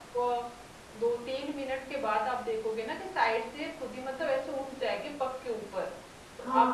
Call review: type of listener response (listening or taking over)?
taking over